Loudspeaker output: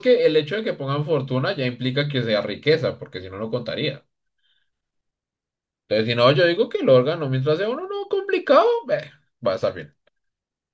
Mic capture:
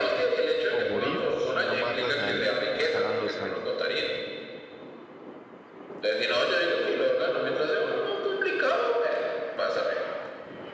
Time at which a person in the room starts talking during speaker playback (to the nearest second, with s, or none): 1 s